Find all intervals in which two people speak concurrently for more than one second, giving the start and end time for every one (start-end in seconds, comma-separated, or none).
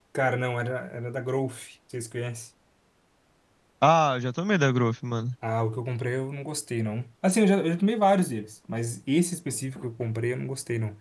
none